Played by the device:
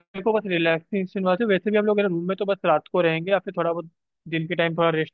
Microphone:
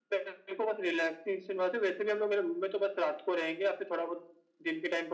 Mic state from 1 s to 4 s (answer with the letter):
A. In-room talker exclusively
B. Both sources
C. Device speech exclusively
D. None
C